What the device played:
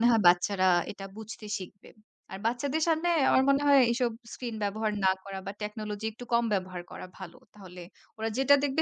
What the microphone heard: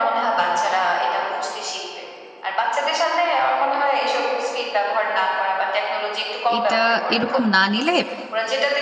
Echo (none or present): present